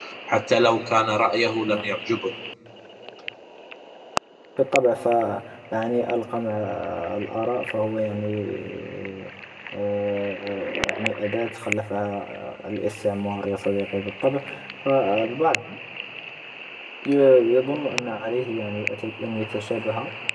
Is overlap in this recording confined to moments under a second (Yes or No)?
Yes